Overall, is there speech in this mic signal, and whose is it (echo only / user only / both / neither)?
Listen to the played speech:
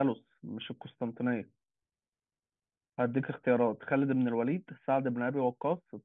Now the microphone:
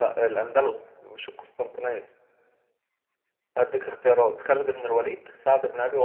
echo only